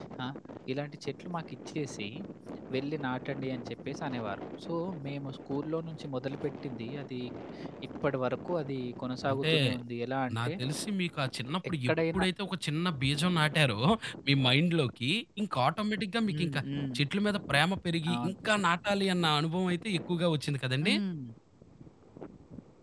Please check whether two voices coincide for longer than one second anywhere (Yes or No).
No